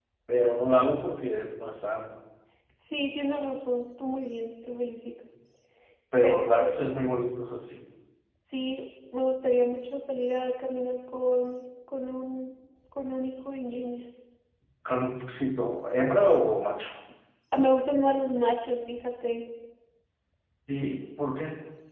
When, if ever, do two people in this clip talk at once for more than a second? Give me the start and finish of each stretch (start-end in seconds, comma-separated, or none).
none